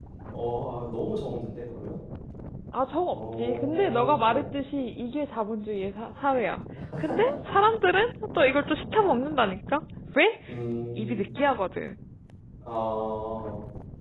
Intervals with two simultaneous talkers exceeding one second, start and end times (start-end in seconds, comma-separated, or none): 3.1-4.5